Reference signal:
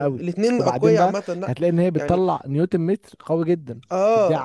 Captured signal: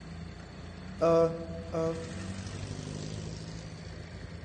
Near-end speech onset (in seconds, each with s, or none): 1.0 s